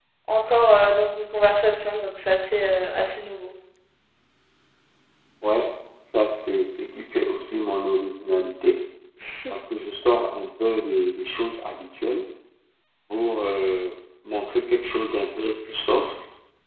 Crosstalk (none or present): none